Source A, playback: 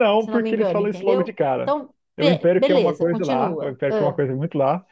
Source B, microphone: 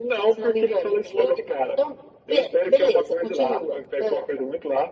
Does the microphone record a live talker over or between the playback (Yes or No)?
No